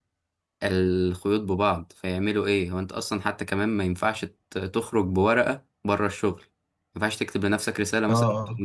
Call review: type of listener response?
listening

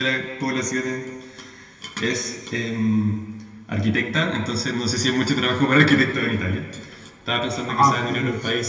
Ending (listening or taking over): taking over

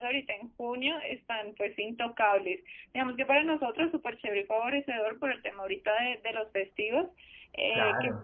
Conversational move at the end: listening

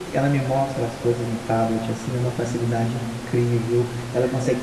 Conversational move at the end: listening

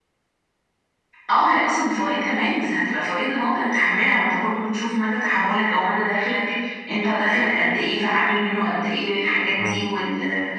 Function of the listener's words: listening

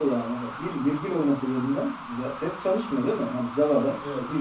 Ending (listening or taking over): listening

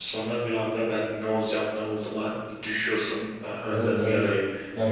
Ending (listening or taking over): taking over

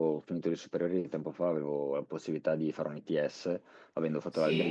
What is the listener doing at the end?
listening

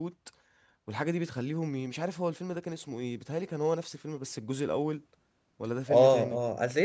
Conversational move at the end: taking over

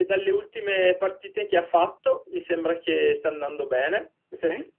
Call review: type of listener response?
listening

